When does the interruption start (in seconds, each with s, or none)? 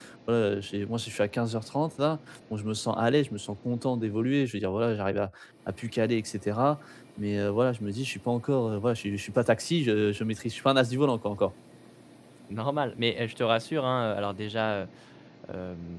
none